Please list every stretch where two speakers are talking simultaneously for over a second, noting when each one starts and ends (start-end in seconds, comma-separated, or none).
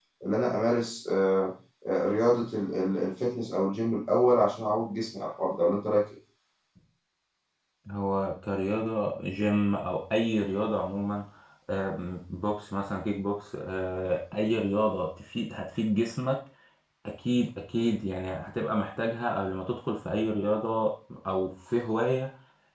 none